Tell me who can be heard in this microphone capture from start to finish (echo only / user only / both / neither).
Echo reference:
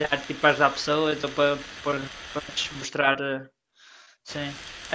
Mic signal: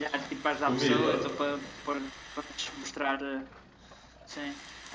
both